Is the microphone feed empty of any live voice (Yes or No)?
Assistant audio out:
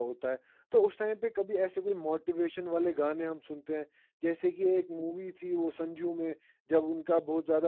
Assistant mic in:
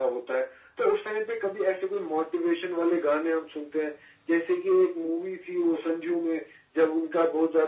Yes